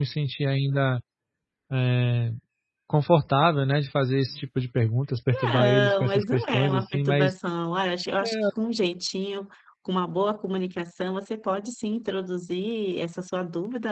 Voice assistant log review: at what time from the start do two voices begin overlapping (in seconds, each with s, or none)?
5.3 s